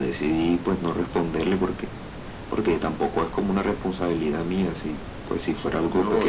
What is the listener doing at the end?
taking over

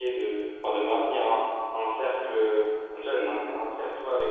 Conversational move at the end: listening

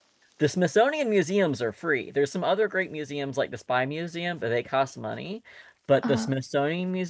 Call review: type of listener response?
listening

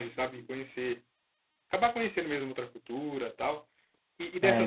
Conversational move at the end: listening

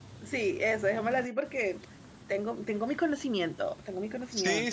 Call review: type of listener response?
taking over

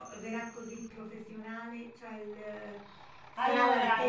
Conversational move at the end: listening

